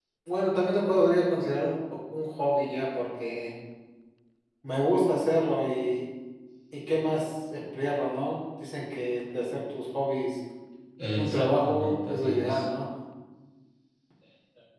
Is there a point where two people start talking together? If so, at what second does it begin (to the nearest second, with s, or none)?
11 s